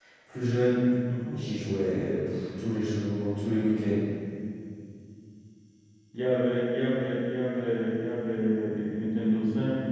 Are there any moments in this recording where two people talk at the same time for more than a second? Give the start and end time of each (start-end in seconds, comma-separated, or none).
none